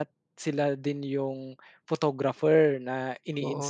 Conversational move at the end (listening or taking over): taking over